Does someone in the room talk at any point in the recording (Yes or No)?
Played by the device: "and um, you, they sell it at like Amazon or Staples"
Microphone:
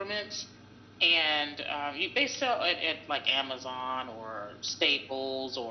No